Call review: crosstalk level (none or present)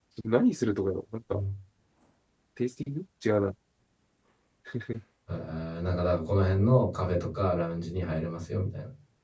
none